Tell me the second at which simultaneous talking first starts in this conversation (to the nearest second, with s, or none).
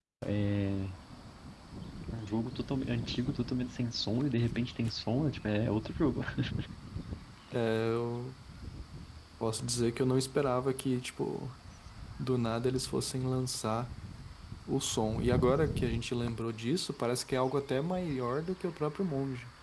none